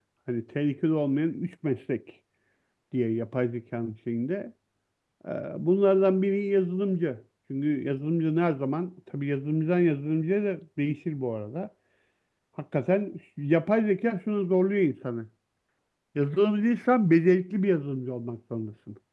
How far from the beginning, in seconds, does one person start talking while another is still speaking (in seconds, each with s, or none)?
none